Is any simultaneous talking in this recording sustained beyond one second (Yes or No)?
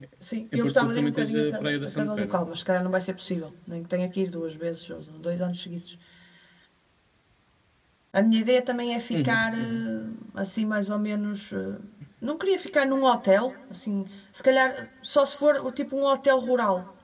Yes